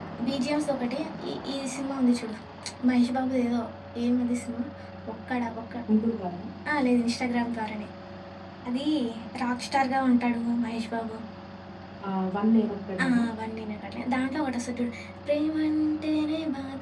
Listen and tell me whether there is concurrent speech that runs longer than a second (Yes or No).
No